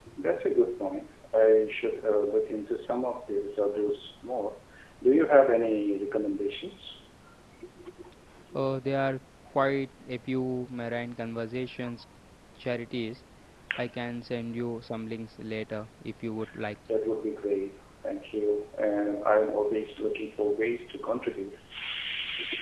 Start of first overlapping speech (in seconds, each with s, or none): none